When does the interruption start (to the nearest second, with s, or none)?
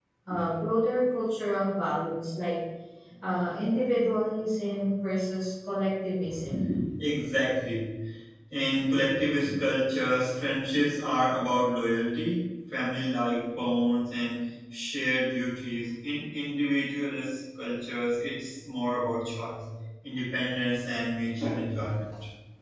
none